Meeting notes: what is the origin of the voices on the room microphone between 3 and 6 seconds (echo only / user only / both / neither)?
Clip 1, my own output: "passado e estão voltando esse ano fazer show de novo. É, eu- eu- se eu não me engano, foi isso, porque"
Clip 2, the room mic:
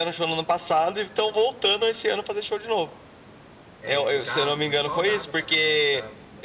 both